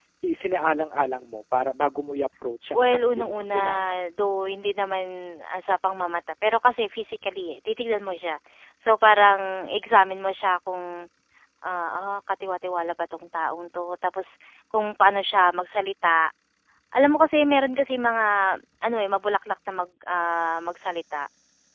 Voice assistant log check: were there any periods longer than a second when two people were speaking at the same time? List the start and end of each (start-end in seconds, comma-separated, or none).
2.7-3.9